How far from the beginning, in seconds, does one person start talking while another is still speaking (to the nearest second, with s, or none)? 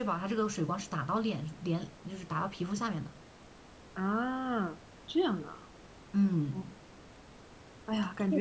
none